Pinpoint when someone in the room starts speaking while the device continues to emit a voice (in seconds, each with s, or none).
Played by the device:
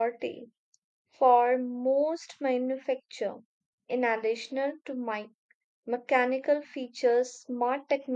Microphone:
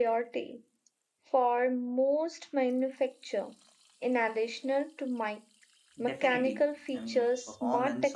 6.0 s